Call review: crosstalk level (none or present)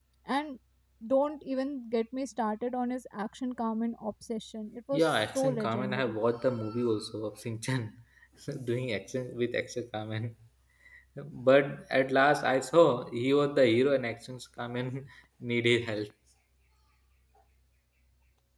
present